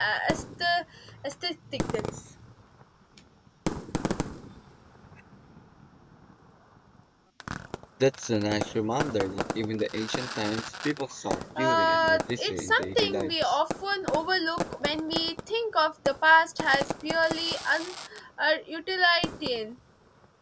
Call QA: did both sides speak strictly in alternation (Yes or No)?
No